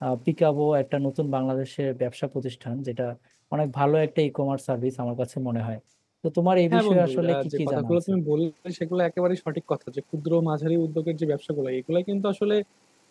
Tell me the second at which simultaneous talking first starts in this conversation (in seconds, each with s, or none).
6.7 s